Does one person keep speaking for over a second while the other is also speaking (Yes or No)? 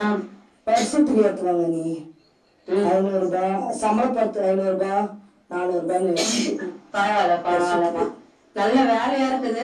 No